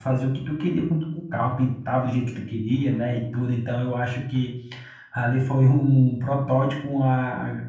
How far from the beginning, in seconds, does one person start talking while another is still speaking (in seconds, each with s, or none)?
none